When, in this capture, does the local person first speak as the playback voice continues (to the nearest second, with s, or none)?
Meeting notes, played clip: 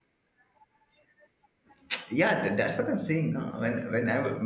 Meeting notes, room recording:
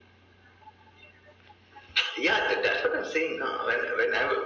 none